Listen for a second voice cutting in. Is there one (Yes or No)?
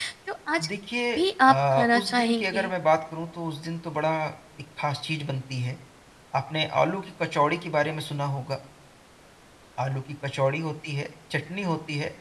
Yes